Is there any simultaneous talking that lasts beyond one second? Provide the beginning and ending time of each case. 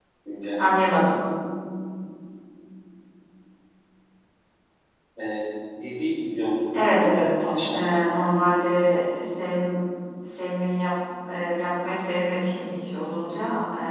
6.7-8.2

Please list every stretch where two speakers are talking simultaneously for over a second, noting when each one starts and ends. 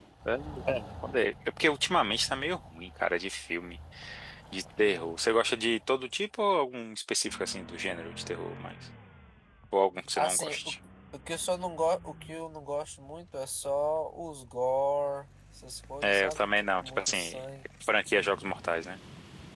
16.0-17.4

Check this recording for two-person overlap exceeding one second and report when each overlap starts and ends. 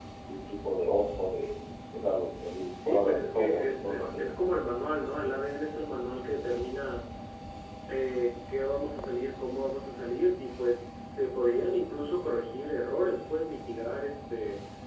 2.9-4.2

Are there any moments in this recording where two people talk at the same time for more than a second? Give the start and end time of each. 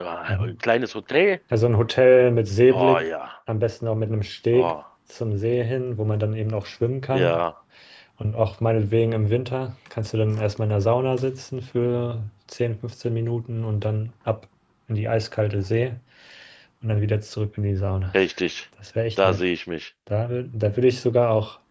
none

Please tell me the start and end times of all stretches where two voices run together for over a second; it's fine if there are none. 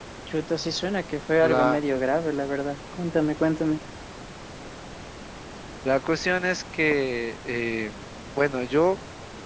none

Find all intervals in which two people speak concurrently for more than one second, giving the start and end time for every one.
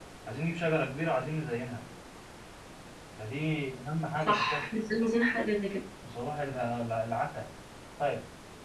none

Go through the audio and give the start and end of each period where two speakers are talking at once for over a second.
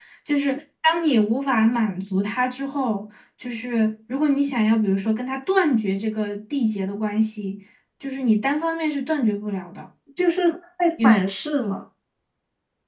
none

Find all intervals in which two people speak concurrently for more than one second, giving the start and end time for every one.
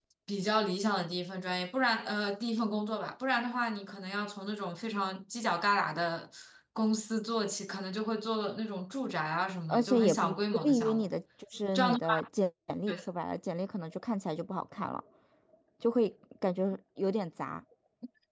9.7-11.1

